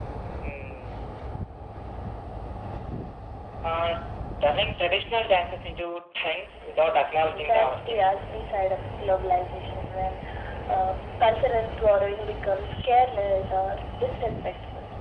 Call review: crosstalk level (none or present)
present